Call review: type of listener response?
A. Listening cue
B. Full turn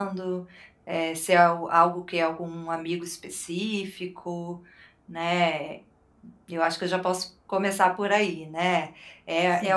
A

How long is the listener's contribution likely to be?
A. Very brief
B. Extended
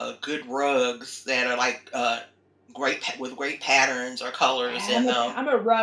B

